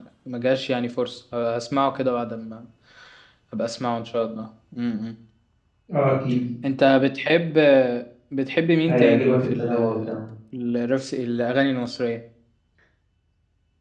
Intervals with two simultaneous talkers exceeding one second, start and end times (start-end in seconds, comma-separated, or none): 8.9-10.2